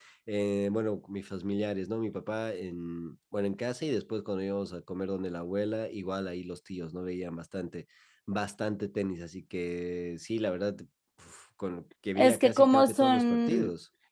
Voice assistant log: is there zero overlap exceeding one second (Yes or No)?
No